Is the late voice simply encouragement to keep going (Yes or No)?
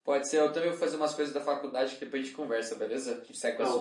No